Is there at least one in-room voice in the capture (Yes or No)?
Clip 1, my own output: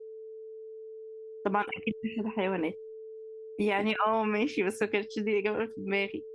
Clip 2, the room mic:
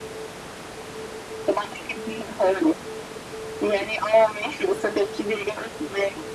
No